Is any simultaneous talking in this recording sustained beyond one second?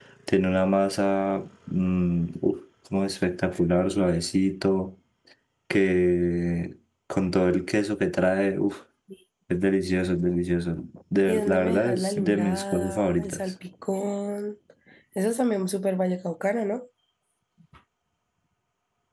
Yes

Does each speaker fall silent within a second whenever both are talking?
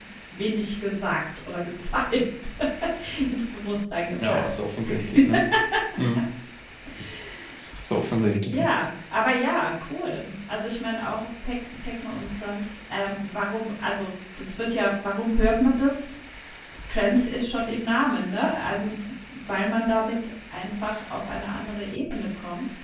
Yes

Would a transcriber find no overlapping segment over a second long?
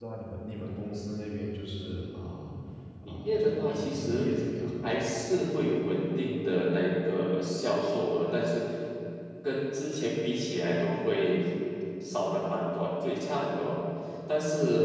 No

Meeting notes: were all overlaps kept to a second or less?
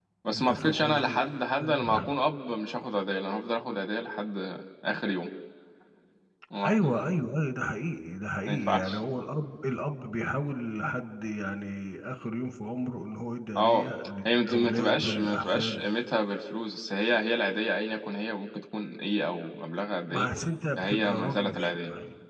No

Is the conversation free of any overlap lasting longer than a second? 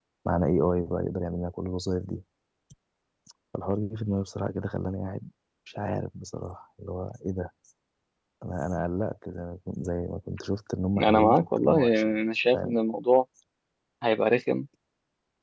No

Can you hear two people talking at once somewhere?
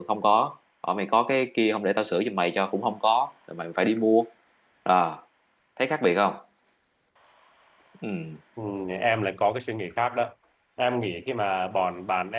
No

